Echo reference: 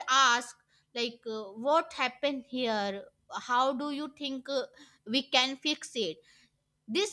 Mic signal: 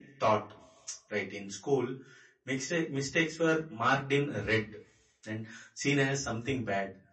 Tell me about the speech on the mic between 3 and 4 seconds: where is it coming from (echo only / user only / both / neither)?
user only